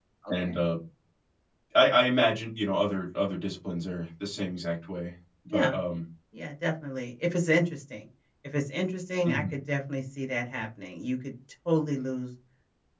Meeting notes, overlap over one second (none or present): none